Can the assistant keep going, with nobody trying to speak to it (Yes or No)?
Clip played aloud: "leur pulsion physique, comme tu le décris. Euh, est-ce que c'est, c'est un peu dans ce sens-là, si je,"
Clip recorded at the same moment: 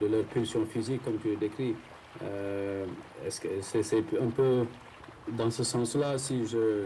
Yes